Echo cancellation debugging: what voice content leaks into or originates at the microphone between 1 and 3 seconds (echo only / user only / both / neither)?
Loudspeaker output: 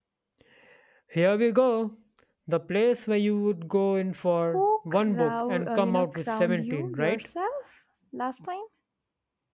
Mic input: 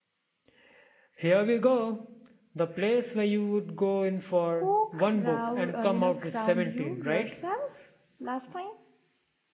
echo only